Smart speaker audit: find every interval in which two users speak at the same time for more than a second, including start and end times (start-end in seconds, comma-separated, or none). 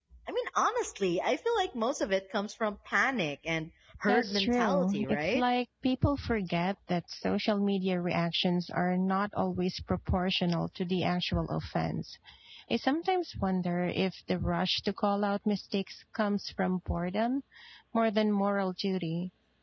4.1-5.4